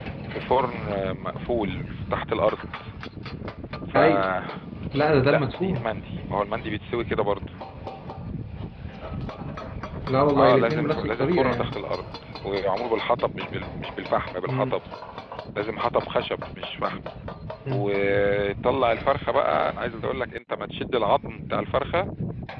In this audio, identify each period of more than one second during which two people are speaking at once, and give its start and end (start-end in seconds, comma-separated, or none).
10.4-11.8